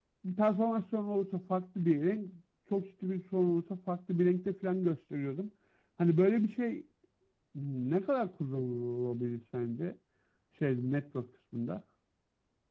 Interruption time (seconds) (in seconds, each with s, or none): none